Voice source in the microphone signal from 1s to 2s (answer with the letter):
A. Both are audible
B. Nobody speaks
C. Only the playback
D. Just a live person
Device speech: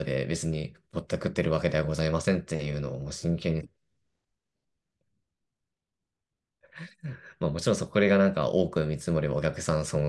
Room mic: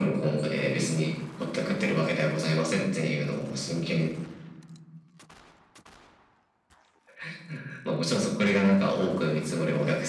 C